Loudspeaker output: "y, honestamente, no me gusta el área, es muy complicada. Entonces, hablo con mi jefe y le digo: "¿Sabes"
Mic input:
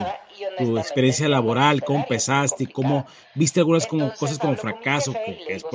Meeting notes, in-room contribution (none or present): present